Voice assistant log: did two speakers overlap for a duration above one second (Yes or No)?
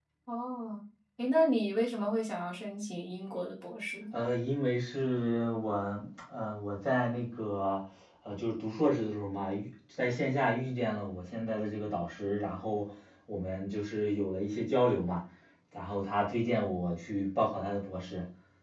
No